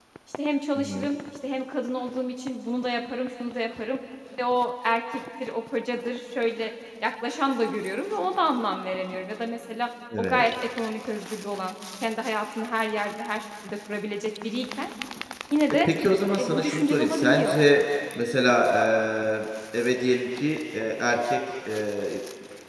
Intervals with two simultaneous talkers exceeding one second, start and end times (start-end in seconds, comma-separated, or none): 16.4-17.6